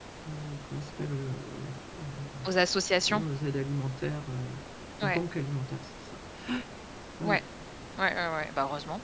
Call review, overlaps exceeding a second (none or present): none